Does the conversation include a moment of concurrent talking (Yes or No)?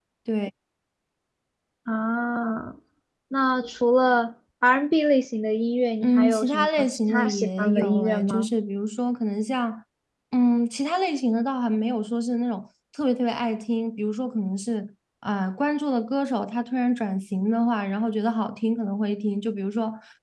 Yes